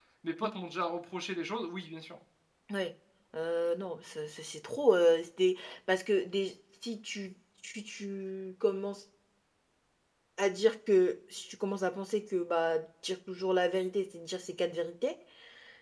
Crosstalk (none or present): none